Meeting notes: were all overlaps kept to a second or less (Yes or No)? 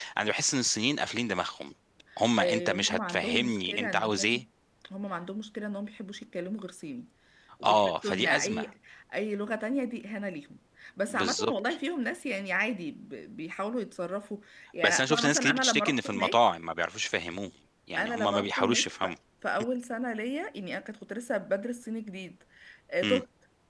No